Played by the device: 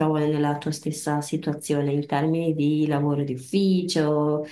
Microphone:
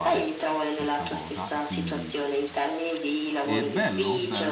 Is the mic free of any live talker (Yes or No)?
No